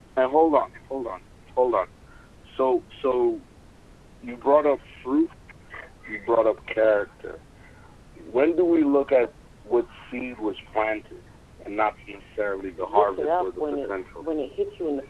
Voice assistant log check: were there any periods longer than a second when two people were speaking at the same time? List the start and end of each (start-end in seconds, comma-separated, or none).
12.7-13.9